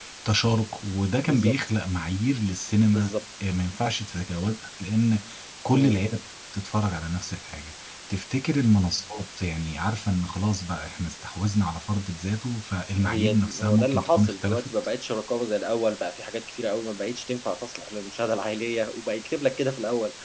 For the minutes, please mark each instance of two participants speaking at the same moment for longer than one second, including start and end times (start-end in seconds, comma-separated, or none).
13.0-14.7